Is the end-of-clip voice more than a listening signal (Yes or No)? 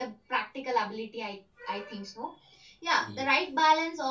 No